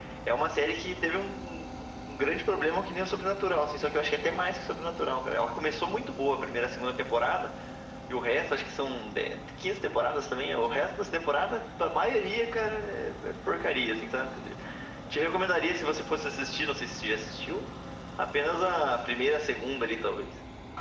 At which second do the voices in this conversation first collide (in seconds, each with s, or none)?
none